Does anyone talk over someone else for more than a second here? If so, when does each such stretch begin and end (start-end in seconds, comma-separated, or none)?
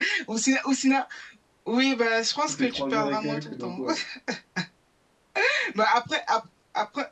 2.5-3.8